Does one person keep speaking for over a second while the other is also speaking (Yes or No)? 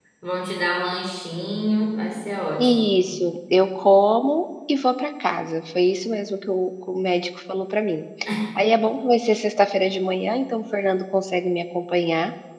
No